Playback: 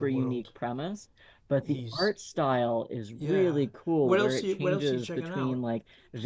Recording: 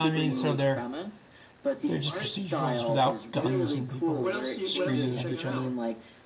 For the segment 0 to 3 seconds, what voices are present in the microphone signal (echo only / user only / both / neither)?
both